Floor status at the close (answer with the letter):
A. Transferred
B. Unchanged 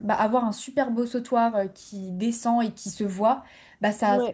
B